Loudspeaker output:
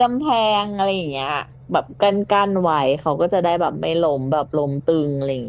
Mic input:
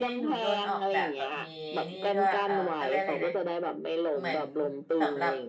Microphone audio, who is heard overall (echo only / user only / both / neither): both